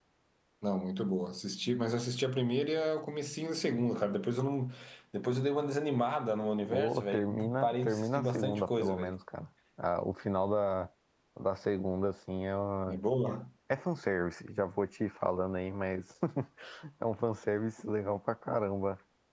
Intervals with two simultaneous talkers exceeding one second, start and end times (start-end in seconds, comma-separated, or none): 6.7-9.2